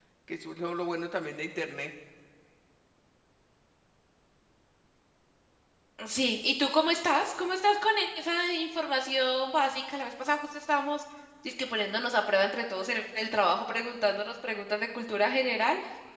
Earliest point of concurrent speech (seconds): none

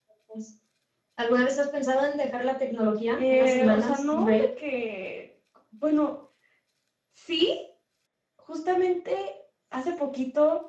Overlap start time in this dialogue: 3.1 s

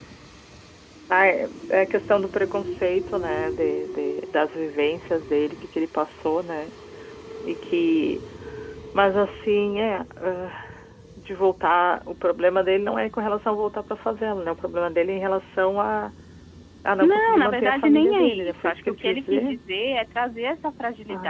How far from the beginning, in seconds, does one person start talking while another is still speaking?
17.0 s

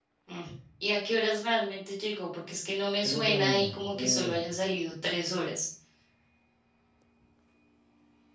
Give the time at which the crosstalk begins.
3.0 s

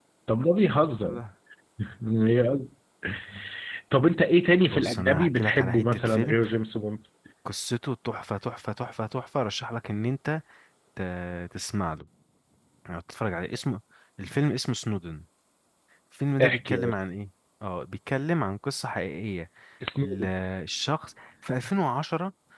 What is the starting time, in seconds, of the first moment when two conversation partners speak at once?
4.6 s

